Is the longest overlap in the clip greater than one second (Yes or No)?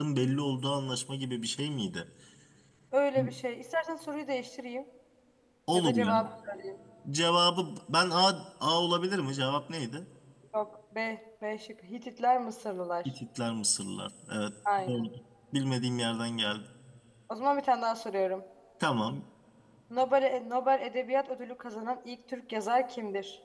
No